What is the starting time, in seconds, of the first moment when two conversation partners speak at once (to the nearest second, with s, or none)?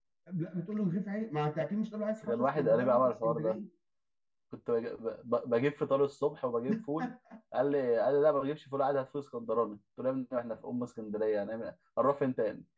2 s